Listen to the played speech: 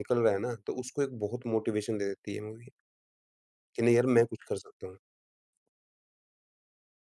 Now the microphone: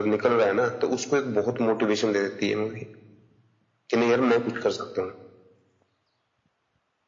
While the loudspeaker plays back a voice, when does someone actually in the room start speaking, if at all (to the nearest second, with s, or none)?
none